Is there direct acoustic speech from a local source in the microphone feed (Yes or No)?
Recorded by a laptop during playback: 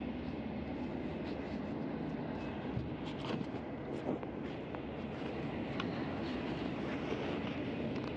No